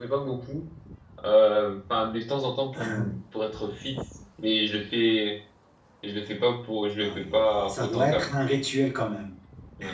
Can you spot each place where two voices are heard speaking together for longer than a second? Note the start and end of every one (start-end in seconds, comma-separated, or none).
7.0-8.3